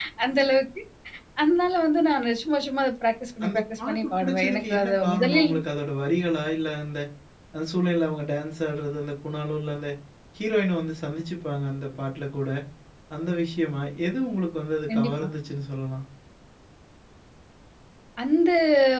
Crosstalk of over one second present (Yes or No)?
Yes